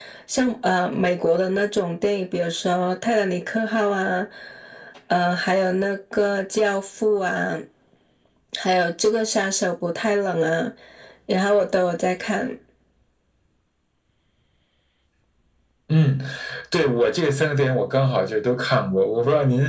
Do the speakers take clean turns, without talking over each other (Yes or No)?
Yes